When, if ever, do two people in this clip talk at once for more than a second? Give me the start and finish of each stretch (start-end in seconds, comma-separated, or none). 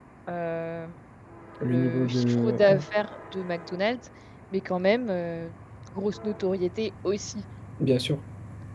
1.6-2.8